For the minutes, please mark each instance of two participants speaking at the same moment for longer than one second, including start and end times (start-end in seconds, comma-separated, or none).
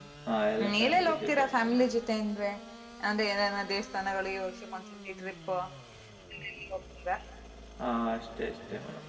0.6-1.9